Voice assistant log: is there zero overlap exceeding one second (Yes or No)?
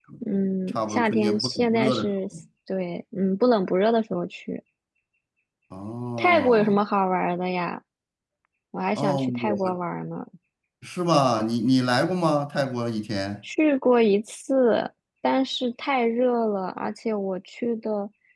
No